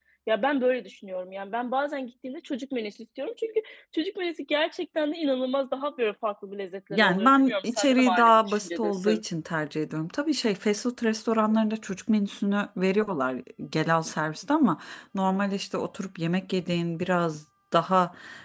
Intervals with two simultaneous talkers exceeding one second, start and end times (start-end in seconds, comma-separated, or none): 6.9-9.2